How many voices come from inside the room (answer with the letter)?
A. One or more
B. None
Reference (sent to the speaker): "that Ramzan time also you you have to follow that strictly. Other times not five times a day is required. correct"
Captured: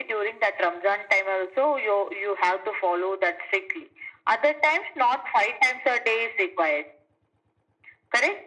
B